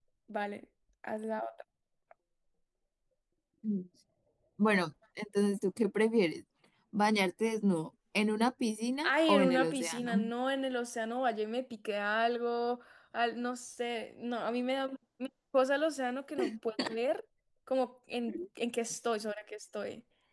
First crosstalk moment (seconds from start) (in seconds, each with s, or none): 9.0 s